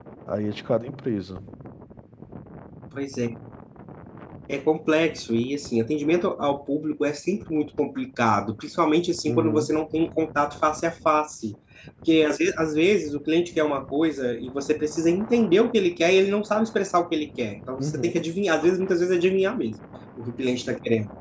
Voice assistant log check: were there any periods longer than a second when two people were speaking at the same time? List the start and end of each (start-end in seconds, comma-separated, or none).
none